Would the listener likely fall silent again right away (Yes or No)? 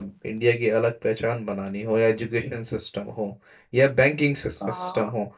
Yes